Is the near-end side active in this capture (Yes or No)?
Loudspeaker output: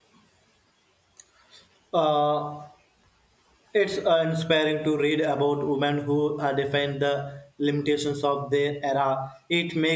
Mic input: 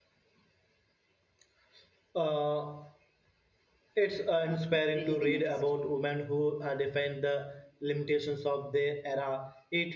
Yes